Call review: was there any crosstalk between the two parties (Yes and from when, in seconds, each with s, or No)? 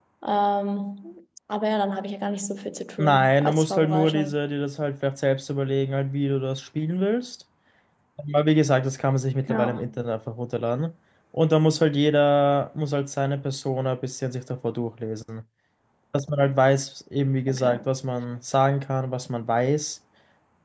Yes, from 3.0 s